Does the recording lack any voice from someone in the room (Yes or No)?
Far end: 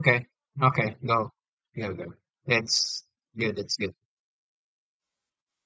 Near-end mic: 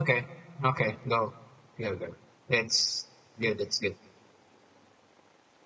Yes